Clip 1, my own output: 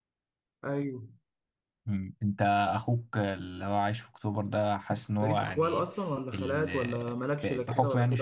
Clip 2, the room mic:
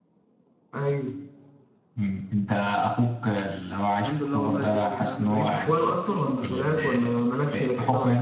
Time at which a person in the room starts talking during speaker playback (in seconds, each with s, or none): 4.0 s